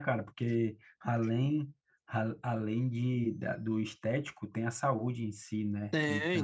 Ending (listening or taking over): taking over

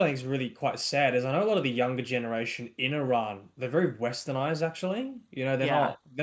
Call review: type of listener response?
listening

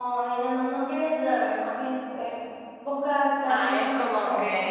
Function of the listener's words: taking over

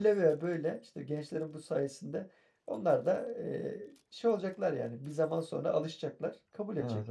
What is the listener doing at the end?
taking over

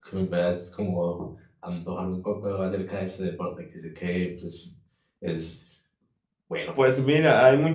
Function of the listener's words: taking over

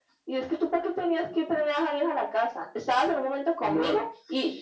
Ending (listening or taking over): listening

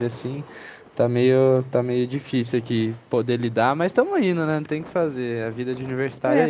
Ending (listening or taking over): taking over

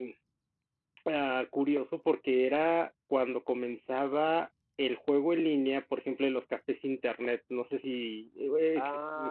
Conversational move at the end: taking over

